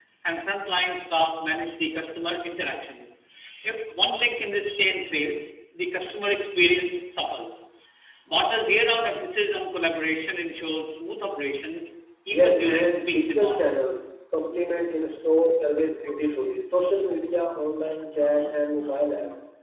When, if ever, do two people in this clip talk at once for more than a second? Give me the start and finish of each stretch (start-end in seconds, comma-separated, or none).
12.3-13.7